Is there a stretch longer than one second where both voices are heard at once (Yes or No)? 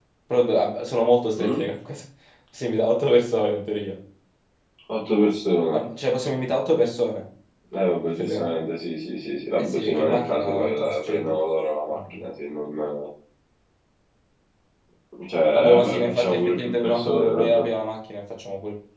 Yes